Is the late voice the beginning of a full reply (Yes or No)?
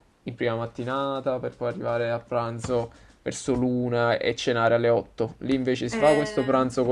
No